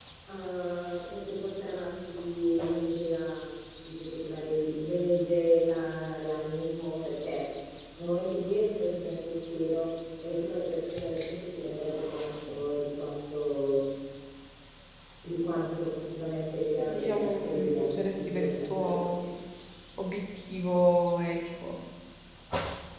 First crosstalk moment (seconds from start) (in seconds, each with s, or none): 16.8 s